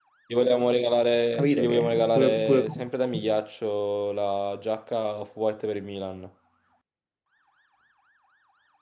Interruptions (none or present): present